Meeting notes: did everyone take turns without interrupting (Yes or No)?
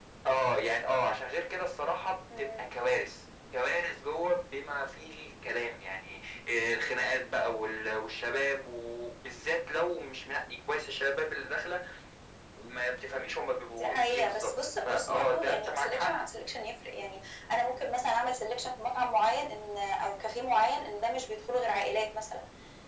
No